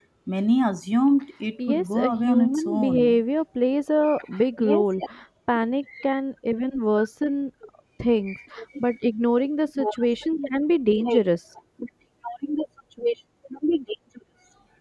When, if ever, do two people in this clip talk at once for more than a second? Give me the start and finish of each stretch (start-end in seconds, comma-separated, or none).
1.7-3.2